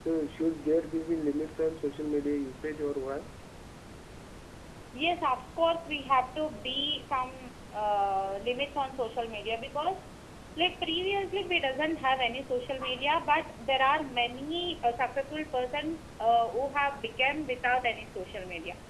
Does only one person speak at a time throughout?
Yes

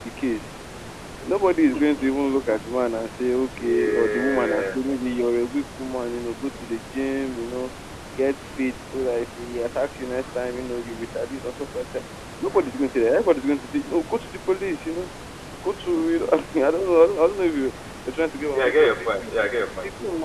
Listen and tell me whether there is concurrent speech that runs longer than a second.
Yes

